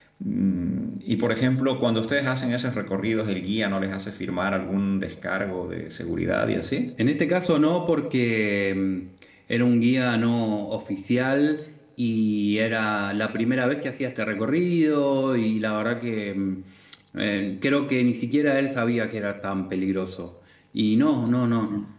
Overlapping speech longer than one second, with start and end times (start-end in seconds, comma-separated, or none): none